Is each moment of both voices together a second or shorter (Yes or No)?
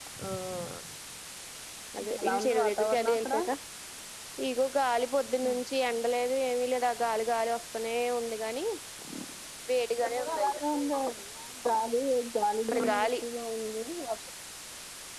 No